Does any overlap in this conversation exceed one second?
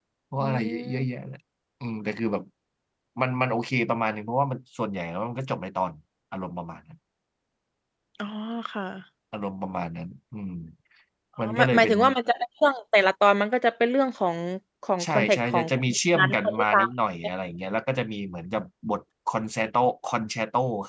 Yes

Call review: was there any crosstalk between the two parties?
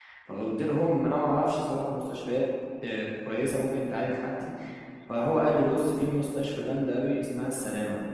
No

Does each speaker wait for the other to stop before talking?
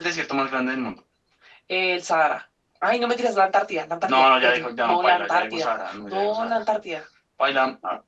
No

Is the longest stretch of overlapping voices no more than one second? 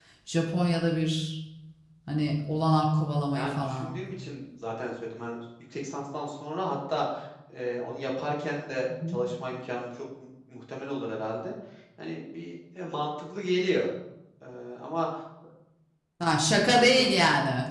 Yes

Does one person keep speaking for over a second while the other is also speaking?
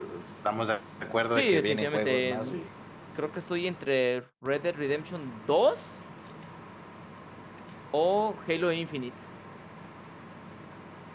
Yes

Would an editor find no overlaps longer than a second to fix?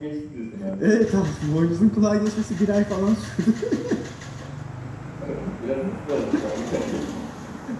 Yes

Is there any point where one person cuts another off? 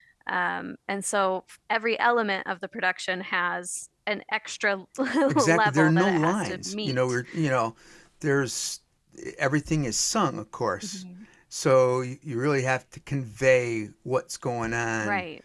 Yes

